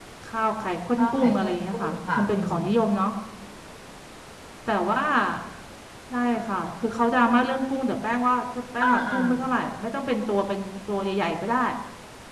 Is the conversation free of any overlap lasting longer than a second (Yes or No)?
No